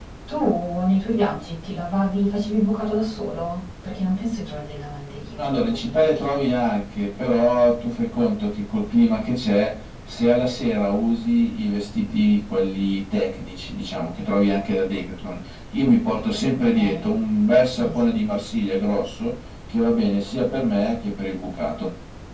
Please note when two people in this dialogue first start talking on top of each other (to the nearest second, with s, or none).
5 s